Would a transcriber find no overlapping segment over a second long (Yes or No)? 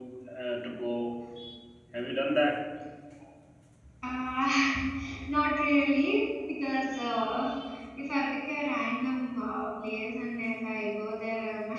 Yes